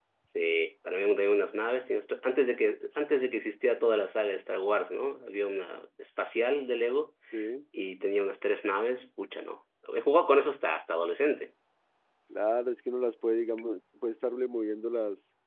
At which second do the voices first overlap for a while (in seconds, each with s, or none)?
none